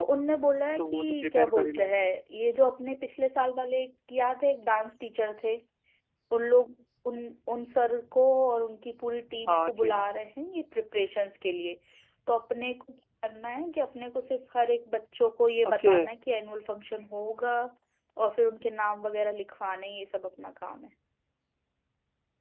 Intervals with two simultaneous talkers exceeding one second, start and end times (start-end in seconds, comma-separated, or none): 0.8-2.0